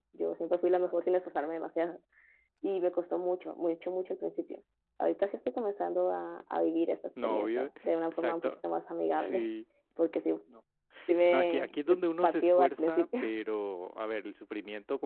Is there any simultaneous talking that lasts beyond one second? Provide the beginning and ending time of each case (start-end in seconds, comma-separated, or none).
11.3-13.3